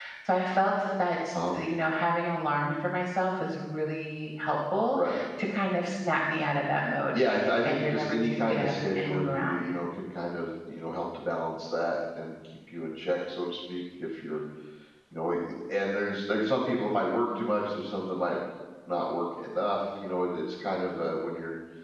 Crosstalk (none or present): present